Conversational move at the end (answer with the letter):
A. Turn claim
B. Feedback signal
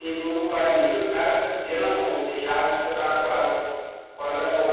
A